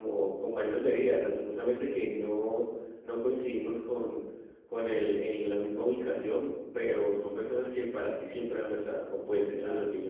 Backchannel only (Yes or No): No